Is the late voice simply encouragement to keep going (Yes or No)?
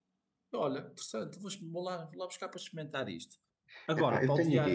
No